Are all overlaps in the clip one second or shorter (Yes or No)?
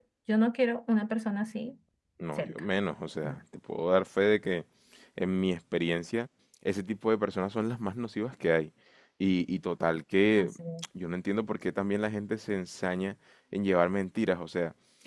Yes